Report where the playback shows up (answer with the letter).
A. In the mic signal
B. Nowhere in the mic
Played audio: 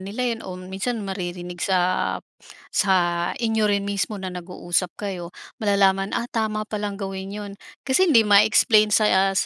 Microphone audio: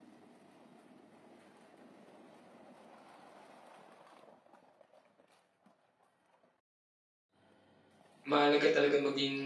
B